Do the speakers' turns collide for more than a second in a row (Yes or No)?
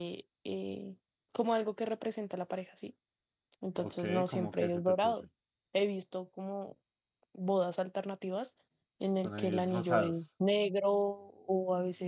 Yes